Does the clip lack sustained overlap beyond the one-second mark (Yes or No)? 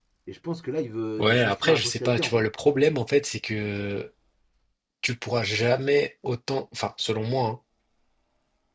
No